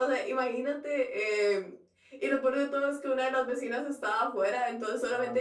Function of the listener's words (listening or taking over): listening